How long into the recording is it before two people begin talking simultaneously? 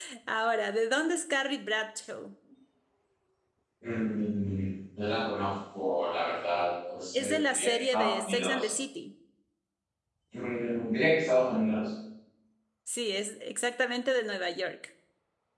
7 s

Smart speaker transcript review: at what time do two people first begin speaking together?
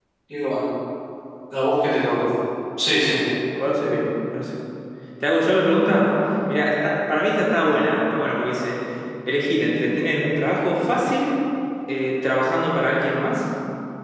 none

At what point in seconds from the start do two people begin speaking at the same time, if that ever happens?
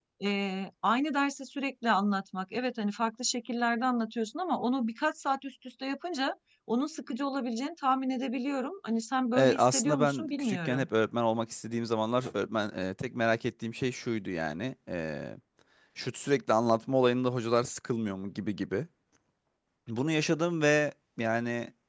9 s

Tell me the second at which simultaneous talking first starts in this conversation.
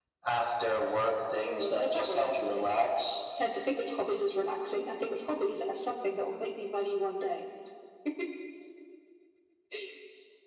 1 s

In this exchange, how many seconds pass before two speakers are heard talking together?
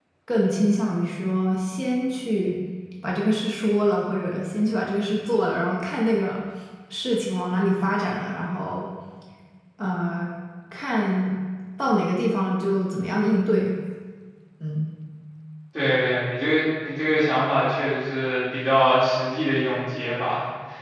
none

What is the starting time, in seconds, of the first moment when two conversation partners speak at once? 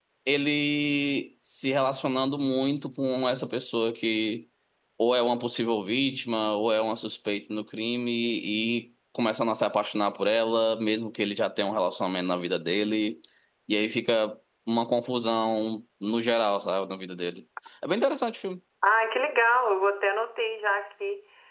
none

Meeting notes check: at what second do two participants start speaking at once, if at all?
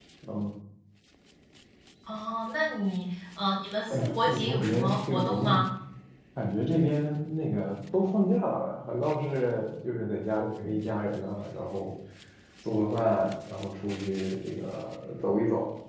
4 s

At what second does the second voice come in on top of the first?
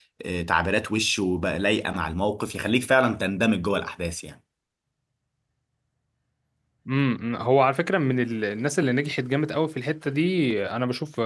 none

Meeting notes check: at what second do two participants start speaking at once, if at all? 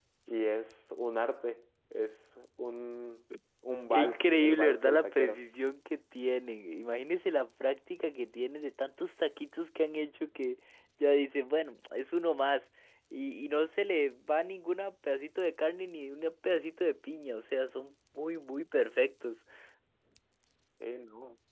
4 s

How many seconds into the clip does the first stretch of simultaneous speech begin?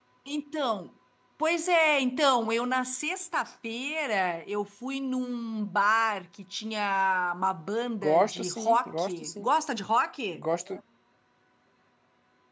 8 s

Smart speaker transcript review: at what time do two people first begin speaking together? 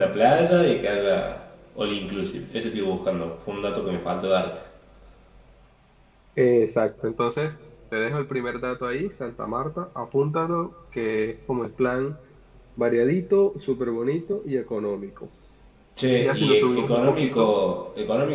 16 s

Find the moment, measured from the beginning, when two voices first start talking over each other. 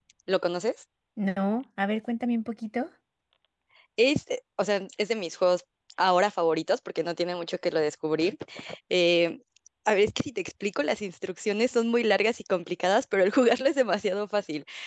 none

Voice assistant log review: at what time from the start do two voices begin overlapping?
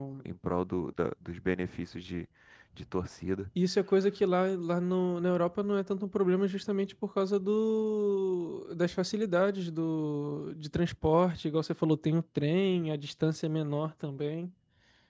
none

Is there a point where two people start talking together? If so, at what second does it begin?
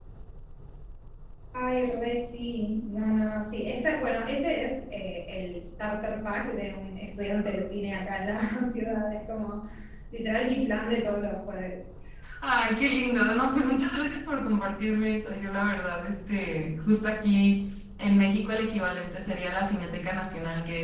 none

